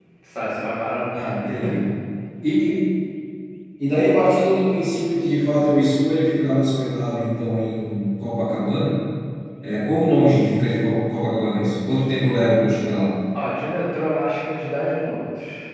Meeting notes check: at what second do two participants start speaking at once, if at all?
none

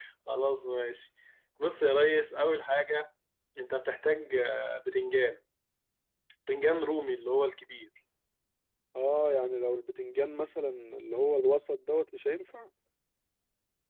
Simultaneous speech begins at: none

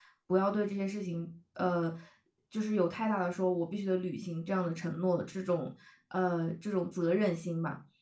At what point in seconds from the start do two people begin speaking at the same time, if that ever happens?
none

